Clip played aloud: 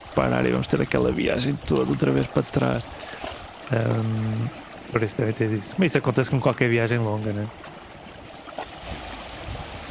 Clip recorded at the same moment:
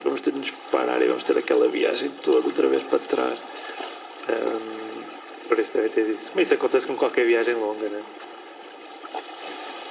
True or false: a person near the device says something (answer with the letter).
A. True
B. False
B